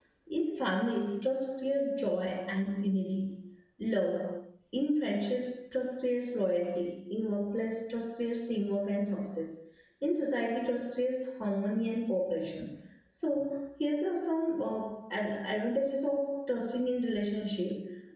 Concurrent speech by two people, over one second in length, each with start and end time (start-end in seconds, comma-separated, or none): none